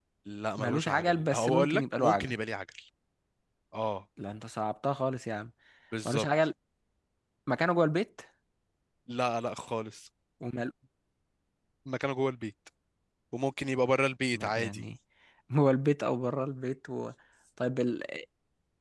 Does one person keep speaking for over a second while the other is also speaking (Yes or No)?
Yes